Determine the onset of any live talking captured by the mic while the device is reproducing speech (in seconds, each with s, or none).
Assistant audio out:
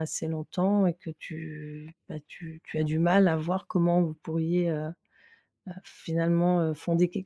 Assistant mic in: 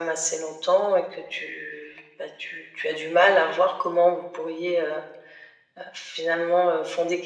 none